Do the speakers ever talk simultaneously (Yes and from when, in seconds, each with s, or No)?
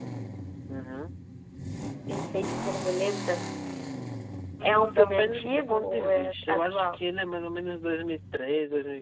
Yes, from 4.6 s